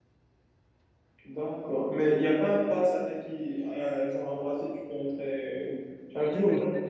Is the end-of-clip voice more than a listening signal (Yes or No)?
Yes